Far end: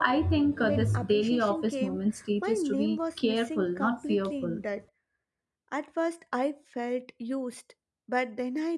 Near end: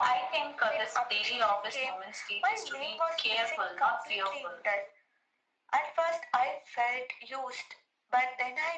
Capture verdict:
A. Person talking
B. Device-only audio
B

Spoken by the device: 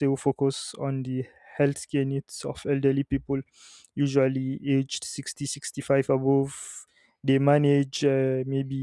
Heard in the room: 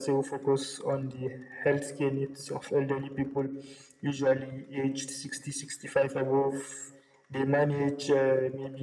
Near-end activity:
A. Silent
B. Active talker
A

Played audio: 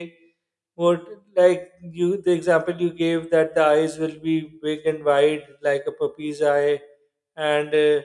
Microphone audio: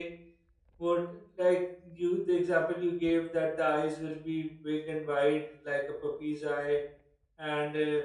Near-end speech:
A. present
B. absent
B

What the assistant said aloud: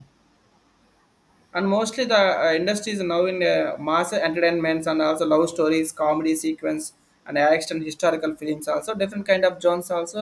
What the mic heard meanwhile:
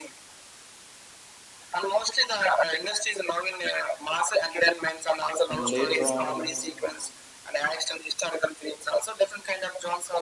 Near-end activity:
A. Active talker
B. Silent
A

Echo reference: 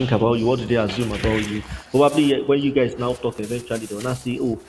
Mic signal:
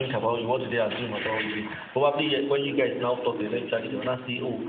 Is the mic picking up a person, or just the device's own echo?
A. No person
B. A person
B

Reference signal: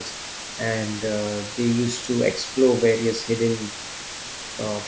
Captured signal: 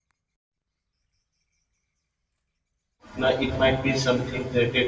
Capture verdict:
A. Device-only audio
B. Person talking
B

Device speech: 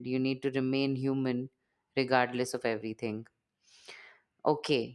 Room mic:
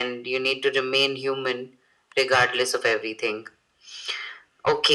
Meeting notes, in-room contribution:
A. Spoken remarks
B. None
B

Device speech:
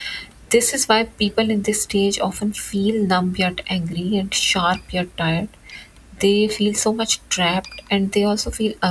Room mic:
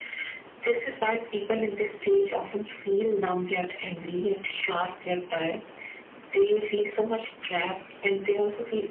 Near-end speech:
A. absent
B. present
A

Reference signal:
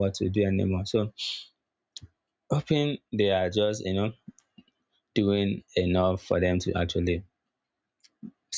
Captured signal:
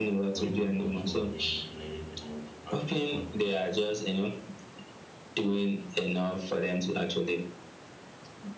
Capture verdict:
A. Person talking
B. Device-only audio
A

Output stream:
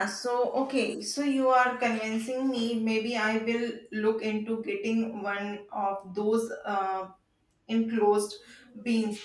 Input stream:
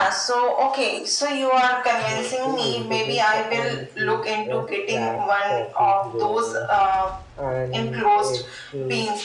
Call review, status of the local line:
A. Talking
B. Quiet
A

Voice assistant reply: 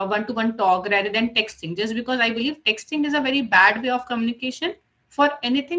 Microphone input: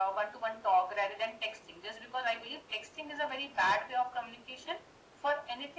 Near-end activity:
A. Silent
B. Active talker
A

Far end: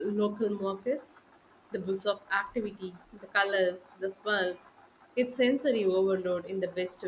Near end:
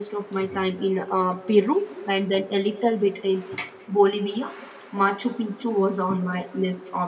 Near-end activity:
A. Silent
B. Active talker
B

